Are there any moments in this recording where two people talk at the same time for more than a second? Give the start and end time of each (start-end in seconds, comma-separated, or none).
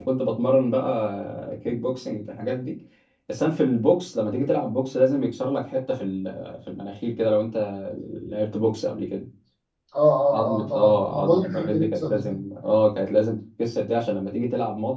10.3-12.4